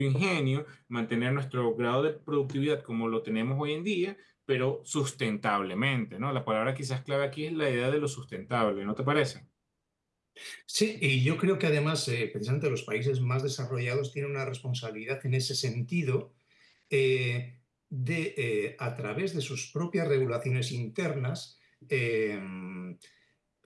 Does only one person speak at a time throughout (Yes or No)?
Yes